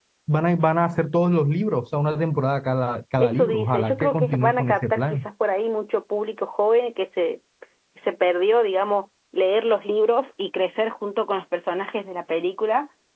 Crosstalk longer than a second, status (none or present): present